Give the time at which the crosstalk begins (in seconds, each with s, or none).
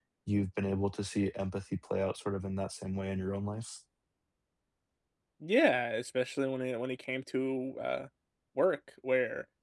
none